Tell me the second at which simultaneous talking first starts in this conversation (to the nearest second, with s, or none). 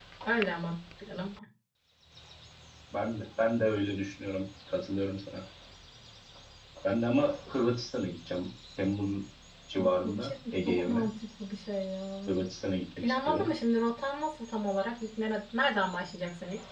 10 s